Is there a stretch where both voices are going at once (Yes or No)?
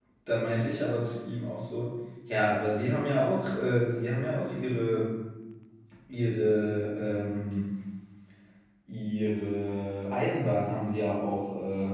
No